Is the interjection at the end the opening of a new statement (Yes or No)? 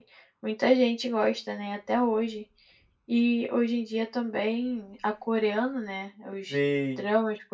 No